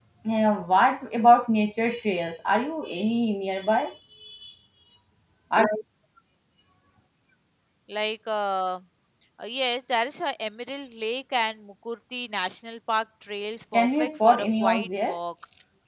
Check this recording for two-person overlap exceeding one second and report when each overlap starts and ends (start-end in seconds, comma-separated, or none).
13.7-15.2